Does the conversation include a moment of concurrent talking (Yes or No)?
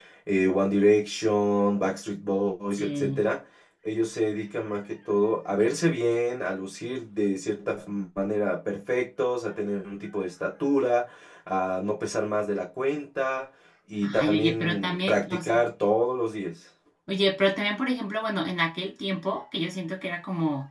Yes